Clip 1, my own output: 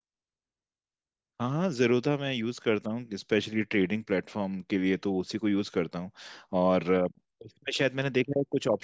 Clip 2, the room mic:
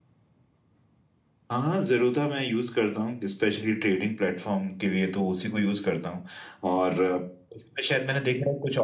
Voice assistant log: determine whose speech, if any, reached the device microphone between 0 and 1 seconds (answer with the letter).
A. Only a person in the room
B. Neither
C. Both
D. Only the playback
B